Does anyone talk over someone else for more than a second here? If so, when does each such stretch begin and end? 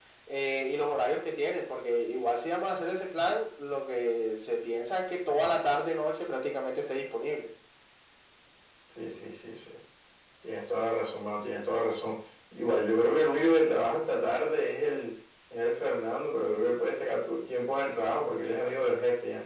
none

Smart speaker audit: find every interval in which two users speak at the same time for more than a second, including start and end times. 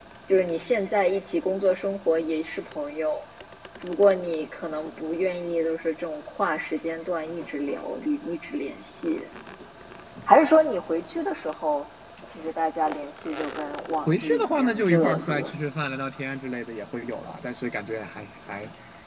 14.1-15.5

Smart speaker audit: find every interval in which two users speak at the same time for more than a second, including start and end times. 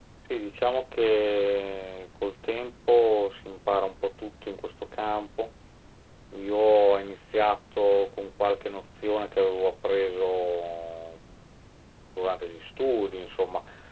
none

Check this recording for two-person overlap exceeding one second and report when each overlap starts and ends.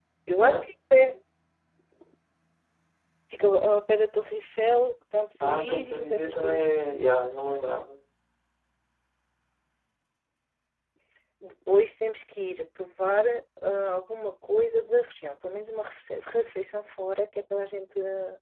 5.4-7.0

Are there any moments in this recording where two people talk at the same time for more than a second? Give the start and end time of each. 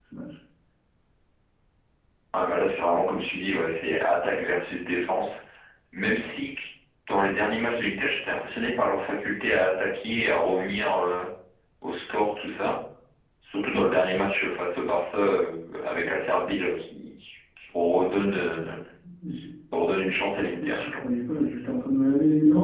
none

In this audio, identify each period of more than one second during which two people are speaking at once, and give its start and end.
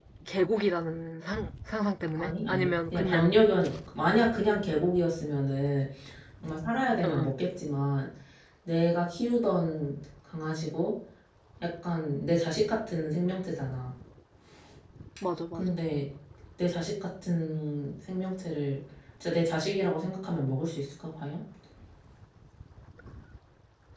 2.2-3.4

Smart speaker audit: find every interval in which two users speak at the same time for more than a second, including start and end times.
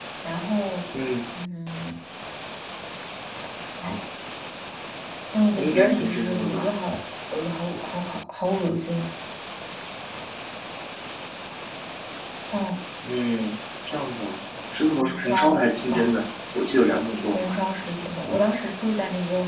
5.5-6.7, 15.0-16.2

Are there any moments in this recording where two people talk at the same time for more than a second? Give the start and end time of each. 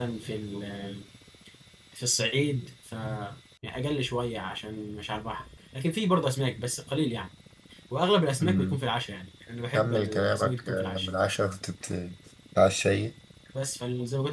9.7-11.1

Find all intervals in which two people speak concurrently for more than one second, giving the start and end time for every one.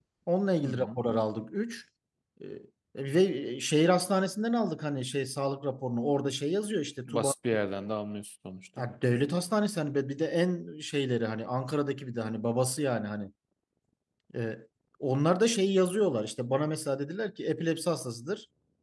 none

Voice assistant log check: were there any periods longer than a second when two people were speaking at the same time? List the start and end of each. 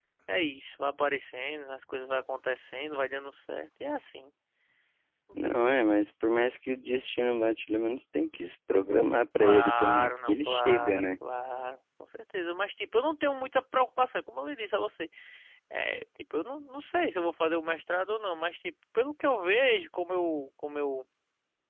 9.4-11.1

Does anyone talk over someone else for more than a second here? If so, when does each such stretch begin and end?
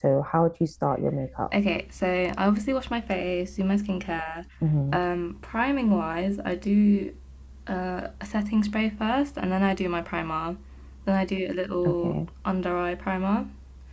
none

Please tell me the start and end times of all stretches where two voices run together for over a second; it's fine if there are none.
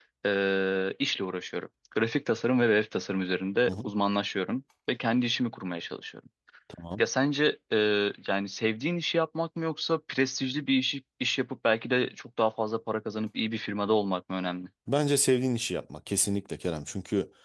none

